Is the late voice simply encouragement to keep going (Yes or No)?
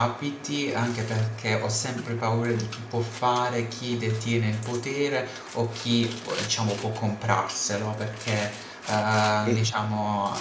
Yes